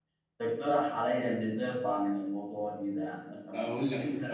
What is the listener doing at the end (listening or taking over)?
taking over